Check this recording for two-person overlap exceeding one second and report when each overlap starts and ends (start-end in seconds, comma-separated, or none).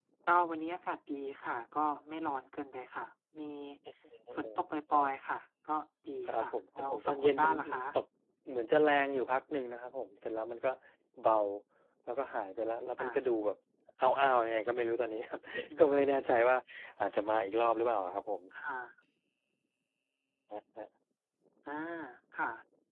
6.3-7.7